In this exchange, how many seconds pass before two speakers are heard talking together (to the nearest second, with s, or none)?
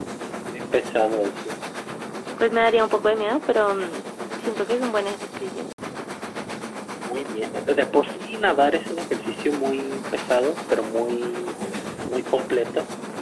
none